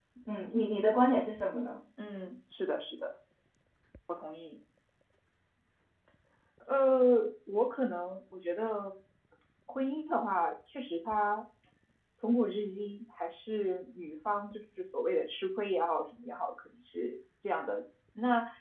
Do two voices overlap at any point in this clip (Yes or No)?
No